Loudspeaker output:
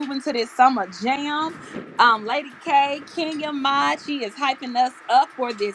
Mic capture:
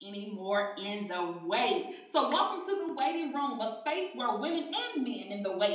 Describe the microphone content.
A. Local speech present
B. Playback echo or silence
A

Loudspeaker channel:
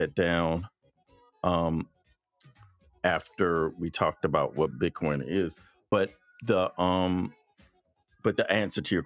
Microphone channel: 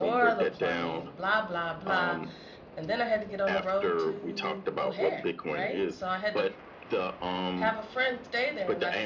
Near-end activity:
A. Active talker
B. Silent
A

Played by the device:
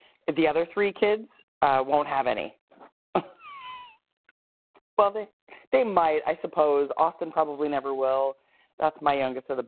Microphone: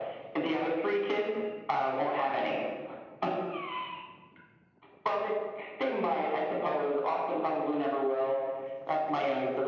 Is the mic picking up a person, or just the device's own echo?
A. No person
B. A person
A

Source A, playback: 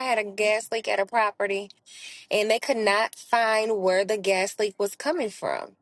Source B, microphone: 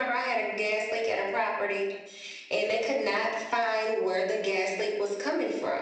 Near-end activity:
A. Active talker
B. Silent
B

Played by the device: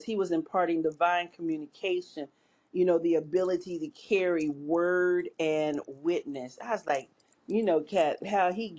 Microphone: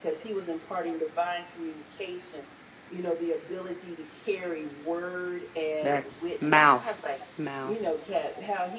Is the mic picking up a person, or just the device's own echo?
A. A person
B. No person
A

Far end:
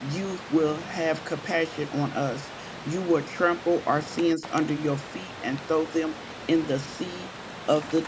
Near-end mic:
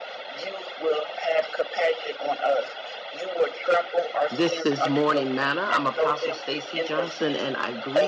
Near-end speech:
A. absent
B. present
B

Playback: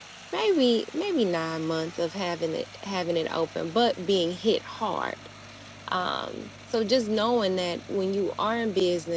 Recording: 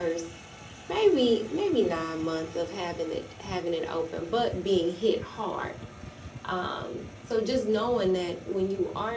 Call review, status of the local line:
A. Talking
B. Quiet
B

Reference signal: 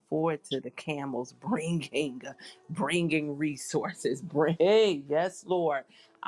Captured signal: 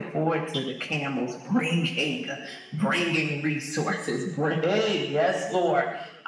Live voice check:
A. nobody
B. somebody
A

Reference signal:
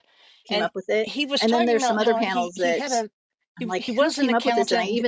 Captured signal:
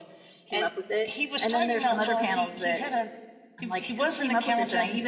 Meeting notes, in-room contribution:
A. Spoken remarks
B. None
B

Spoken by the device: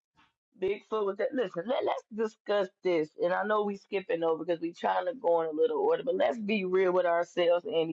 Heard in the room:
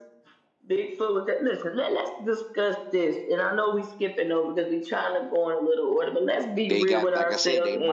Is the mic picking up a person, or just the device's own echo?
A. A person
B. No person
A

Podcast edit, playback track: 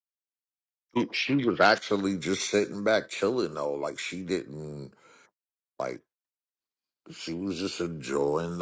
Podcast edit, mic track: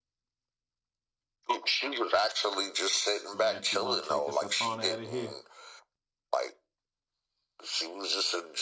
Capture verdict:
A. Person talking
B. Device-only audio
A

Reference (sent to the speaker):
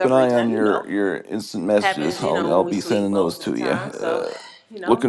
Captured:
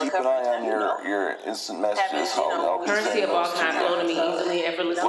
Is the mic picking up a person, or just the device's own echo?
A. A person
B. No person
A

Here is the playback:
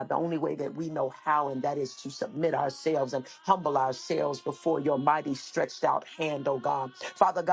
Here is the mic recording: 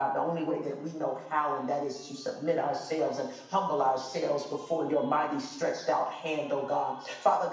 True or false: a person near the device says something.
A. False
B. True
A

